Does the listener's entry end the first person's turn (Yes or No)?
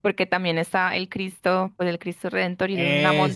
No